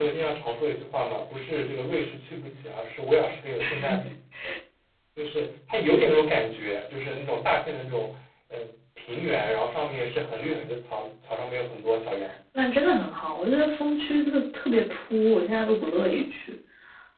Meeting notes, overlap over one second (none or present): none